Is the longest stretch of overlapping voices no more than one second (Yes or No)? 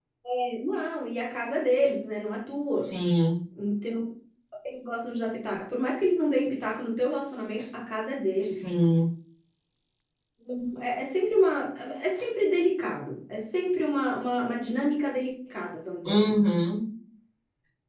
Yes